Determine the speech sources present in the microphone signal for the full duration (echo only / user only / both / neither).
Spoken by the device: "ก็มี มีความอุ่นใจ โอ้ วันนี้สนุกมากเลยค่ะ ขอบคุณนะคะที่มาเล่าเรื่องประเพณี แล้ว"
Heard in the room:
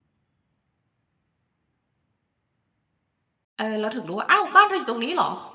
user only